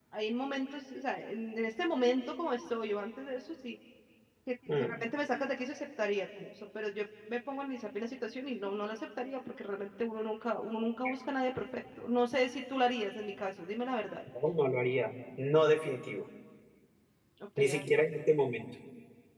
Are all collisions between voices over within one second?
Yes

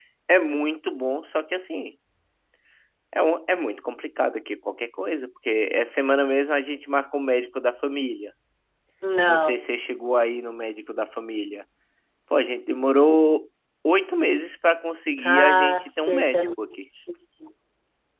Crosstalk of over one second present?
Yes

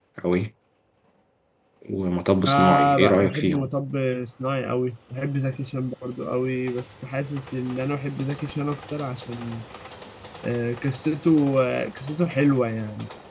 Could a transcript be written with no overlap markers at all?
No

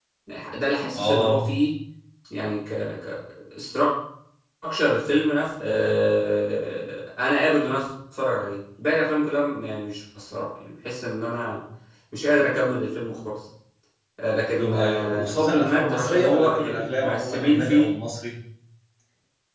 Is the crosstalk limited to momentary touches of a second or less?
No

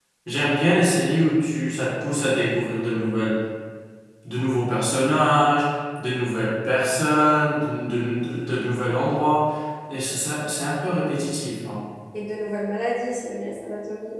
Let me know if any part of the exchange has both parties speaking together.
No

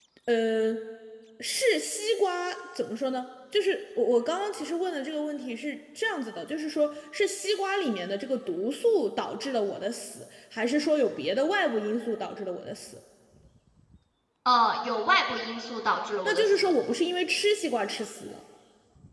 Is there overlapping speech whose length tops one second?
No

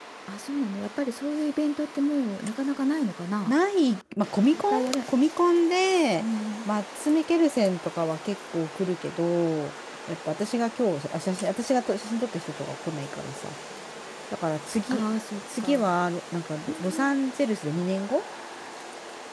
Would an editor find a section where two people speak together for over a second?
No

